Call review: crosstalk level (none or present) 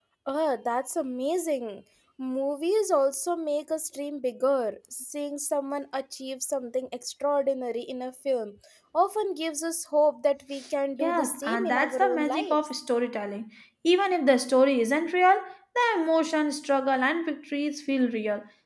present